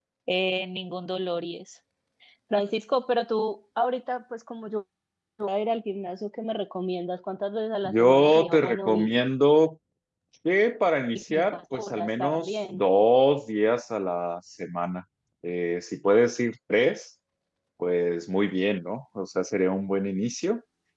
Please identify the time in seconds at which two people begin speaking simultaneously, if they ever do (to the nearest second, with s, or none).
8 s